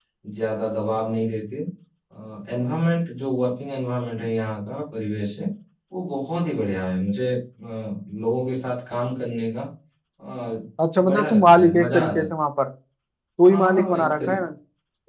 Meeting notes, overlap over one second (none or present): present